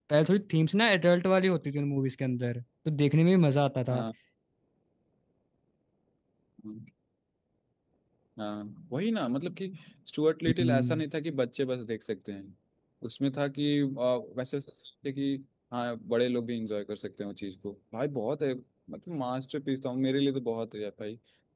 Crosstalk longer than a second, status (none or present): none